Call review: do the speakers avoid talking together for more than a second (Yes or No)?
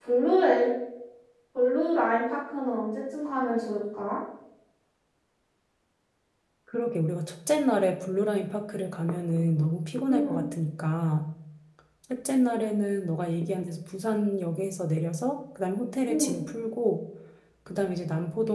Yes